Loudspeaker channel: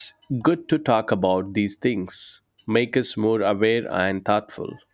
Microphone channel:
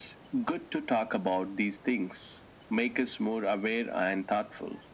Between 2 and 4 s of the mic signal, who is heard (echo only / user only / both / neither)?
echo only